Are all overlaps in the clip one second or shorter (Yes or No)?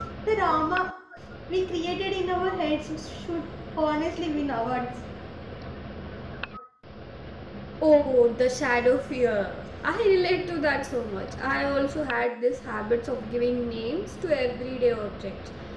Yes